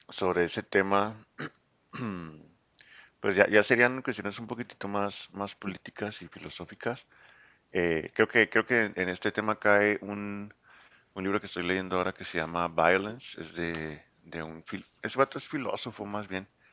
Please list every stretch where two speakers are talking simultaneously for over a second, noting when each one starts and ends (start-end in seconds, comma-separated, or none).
none